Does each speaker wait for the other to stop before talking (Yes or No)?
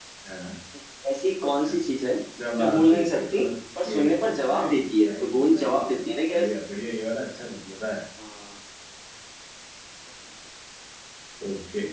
No